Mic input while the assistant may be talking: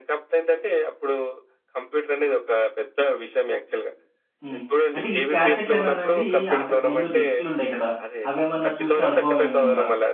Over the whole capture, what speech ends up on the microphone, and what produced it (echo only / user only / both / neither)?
both